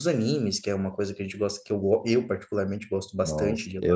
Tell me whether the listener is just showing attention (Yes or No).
No